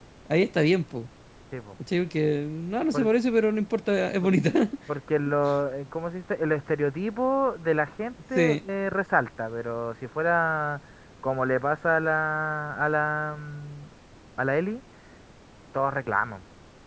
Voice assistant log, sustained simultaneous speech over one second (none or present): none